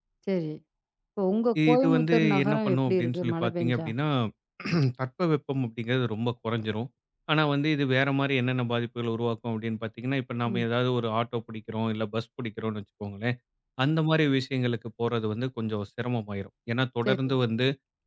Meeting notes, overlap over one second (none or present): present